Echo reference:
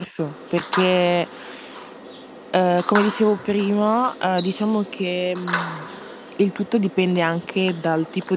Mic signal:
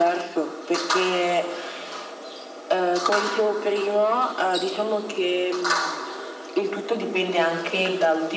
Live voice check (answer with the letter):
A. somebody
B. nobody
B